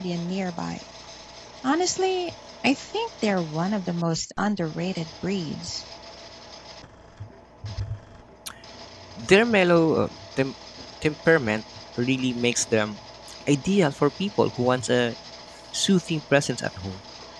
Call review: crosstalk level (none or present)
none